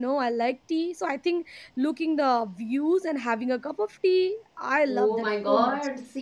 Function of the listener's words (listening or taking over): taking over